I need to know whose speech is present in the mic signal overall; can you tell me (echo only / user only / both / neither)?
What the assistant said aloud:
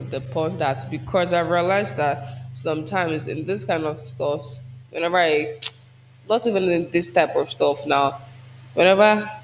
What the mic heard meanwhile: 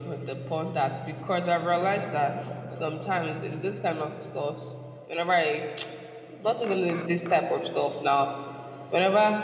echo only